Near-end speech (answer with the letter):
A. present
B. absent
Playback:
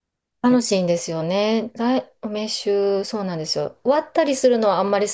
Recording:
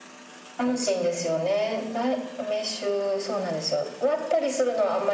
B